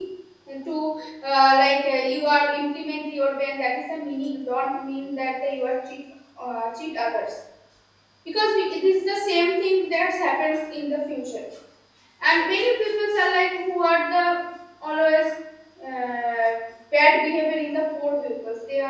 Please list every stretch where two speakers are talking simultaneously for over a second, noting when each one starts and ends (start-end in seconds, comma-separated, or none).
none